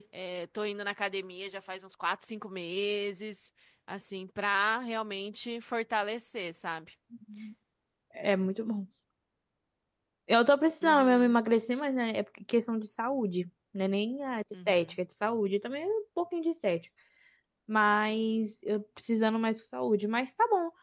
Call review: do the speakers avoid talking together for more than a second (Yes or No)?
Yes